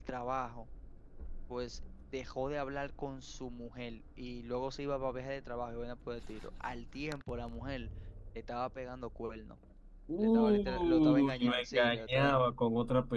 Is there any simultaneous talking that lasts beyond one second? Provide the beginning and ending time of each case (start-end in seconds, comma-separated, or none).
10.2-12.4